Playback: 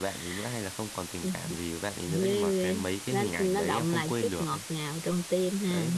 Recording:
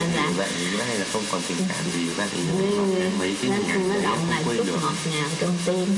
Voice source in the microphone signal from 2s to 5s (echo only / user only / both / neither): echo only